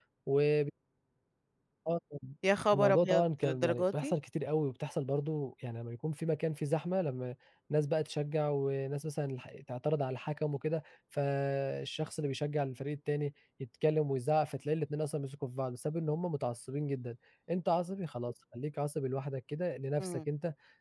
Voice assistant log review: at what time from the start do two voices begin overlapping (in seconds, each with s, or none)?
2.7 s